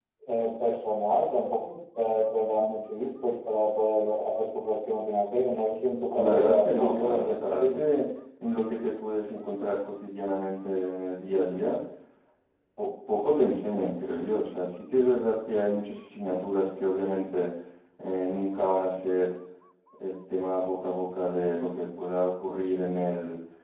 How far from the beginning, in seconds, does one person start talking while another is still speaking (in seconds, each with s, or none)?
6.2 s